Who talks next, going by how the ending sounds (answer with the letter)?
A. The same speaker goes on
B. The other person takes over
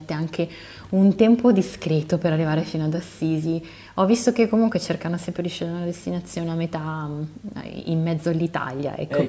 B